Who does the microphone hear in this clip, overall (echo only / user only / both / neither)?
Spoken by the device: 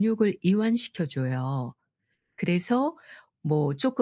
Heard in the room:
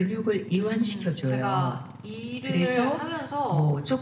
both